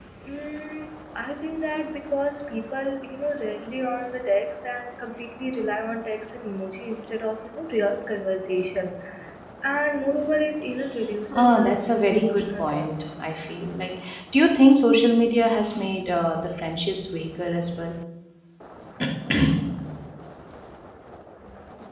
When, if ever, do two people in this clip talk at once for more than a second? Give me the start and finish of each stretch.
11.3-12.9

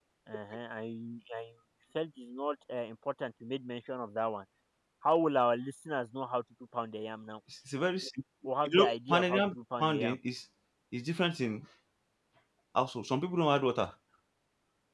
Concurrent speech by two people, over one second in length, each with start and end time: 8.6-10.2

